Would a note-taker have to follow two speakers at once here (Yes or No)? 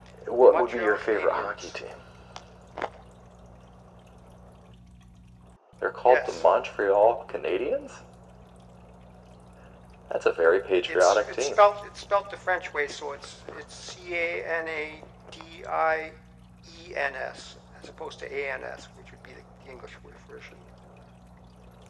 Yes